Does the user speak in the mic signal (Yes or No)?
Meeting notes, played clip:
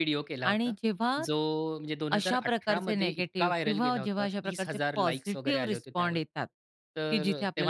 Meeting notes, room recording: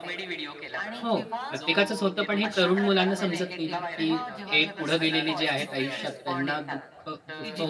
Yes